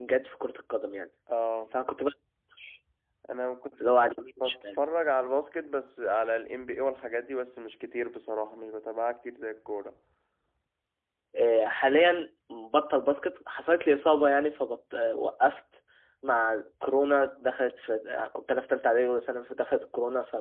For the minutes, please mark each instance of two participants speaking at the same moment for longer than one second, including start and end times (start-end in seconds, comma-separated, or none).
none